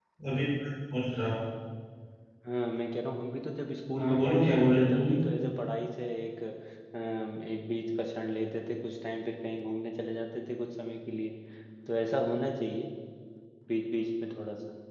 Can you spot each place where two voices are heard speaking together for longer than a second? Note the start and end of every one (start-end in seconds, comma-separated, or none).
4.0-5.2